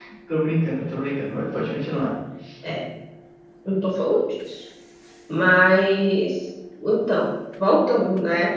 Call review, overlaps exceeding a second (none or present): none